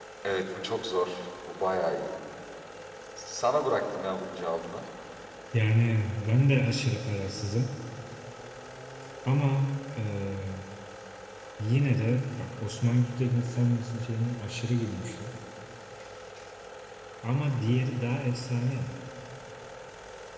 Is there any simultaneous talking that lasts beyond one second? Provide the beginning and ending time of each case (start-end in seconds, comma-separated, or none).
none